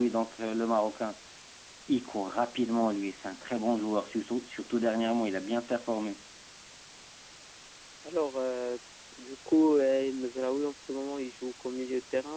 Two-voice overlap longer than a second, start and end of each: none

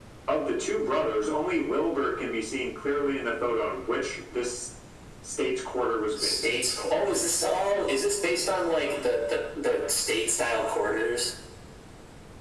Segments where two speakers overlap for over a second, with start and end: none

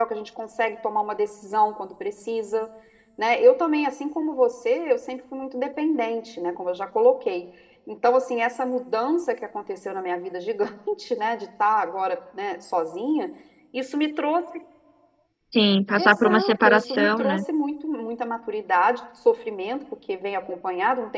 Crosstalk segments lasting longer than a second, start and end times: 16.0-17.4

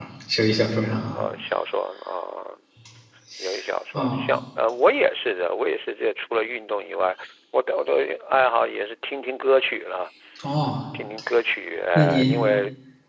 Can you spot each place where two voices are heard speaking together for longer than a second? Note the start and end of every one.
none

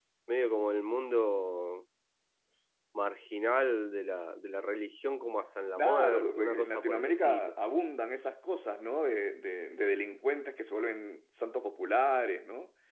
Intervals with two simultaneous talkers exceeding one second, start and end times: 5.8-7.5

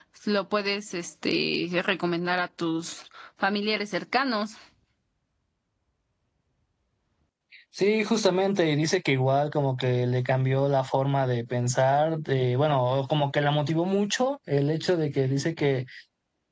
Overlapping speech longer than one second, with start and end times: none

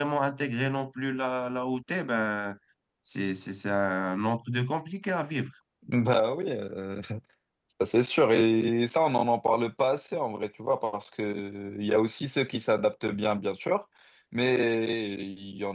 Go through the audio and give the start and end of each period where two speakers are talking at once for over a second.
none

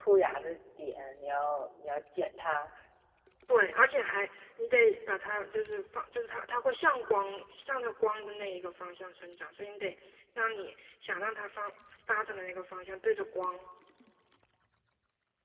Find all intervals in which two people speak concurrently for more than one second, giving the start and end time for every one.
none

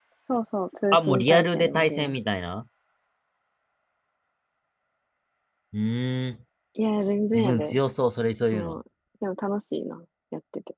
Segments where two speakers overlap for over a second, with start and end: 0.9-2.1

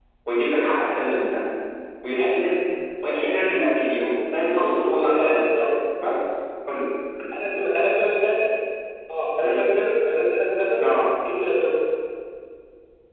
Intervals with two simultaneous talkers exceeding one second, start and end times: none

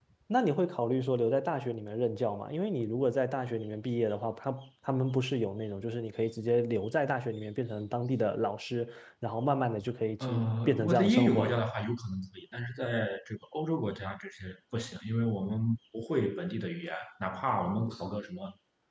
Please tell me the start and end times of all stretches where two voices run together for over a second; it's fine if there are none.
10.2-11.6

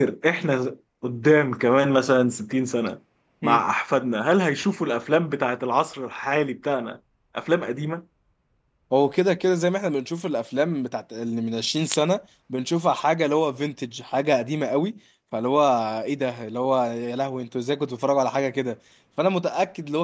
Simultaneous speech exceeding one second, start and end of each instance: none

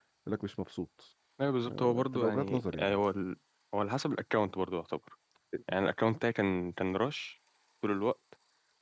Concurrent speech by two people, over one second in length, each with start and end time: 1.6-3.0

